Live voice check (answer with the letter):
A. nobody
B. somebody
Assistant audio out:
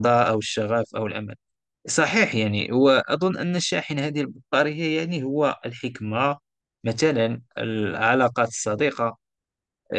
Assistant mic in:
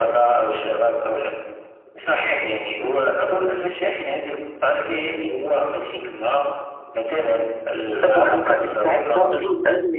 B